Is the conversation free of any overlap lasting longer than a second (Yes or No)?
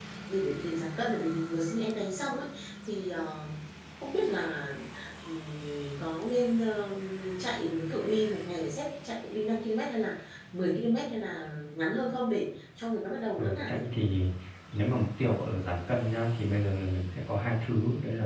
Yes